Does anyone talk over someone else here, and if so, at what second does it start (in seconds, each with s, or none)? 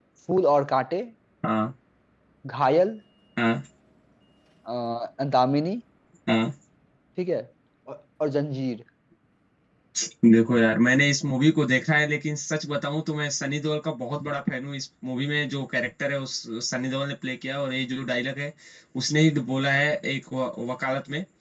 none